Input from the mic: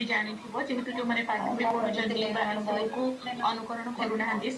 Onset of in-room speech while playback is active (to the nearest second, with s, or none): none